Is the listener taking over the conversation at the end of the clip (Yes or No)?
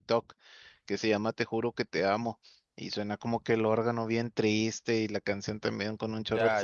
Yes